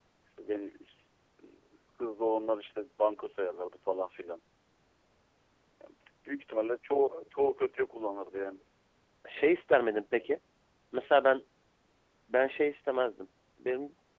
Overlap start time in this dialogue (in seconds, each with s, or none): none